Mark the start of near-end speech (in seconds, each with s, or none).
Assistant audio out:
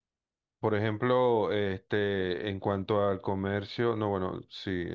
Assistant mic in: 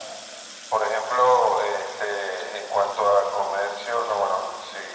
none